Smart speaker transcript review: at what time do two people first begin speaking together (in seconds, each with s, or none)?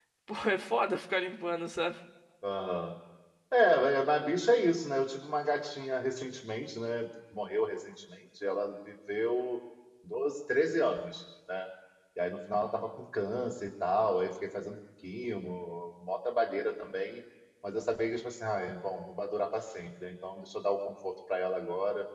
none